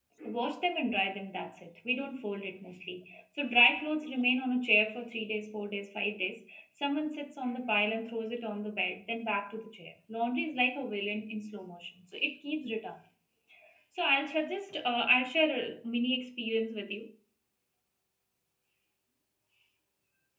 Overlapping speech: No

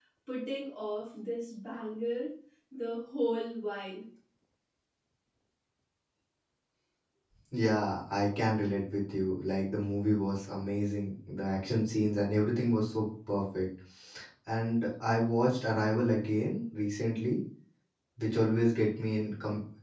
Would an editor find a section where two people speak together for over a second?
No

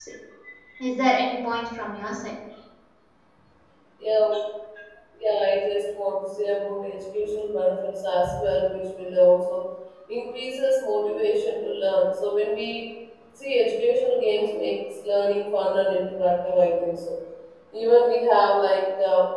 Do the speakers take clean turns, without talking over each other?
Yes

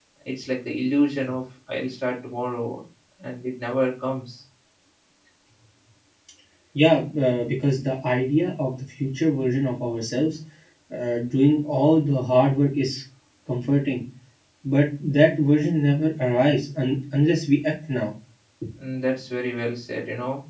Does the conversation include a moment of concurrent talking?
No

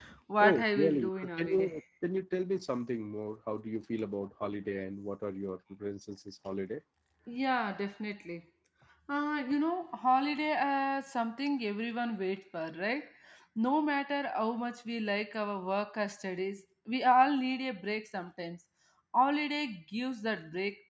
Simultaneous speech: Yes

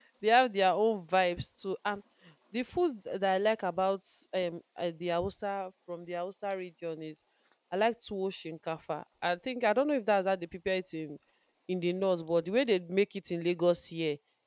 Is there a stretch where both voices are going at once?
No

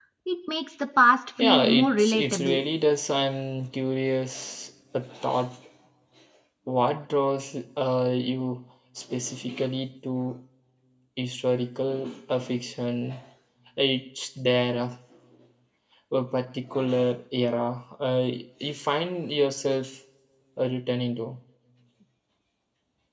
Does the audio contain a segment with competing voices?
Yes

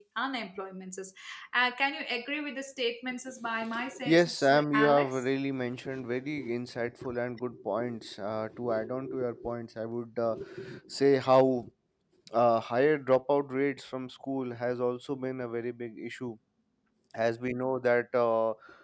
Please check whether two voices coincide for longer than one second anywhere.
Yes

